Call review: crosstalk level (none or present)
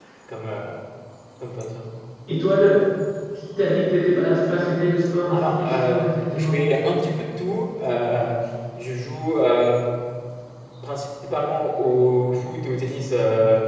present